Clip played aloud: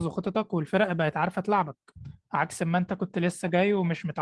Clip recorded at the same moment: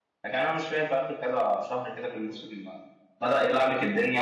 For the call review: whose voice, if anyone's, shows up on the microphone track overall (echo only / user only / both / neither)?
user only